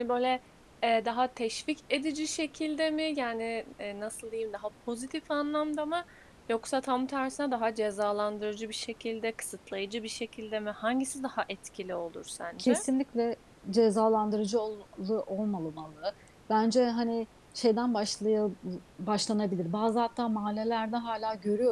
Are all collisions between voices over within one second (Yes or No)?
Yes